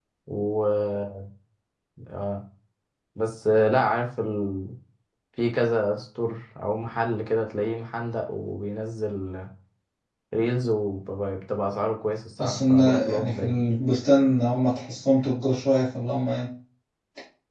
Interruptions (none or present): present